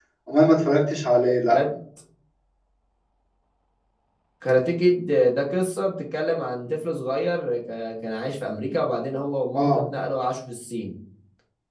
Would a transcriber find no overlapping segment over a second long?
Yes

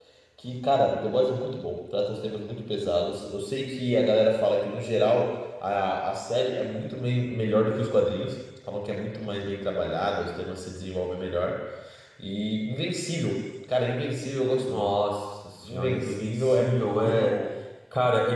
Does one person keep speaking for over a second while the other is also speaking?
Yes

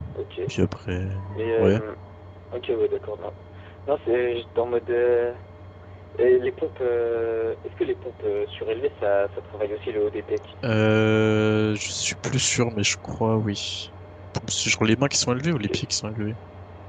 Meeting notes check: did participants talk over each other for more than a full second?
No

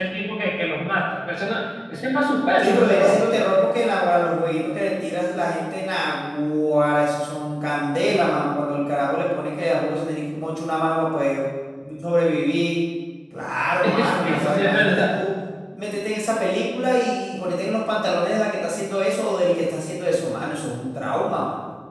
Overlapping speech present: Yes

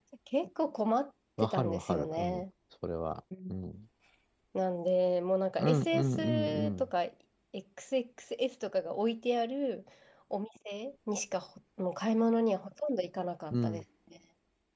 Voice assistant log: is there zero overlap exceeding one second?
No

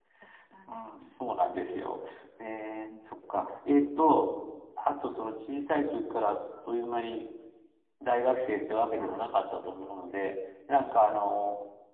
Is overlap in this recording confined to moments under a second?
Yes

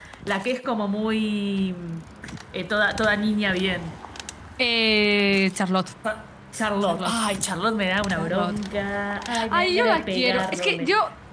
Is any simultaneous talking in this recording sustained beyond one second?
Yes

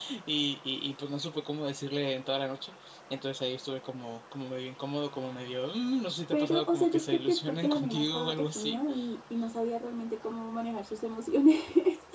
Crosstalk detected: Yes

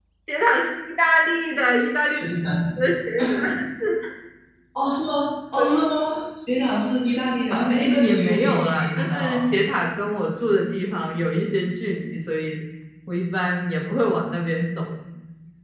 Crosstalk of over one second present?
Yes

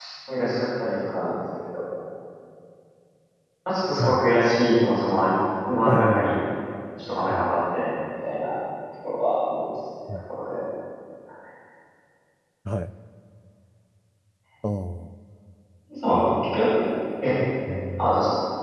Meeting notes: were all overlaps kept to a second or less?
Yes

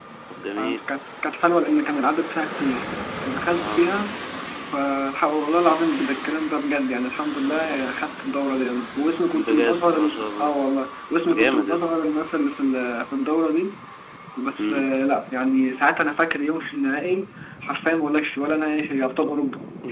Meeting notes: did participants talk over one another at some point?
Yes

